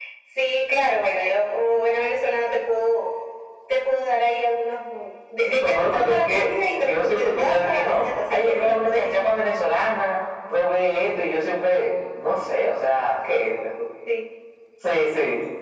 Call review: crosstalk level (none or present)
present